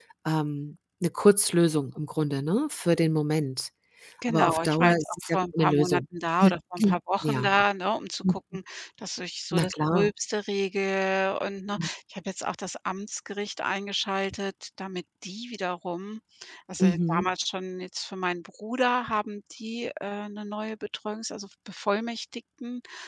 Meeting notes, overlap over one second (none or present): present